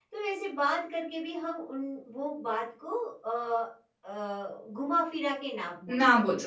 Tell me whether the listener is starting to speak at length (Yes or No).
Yes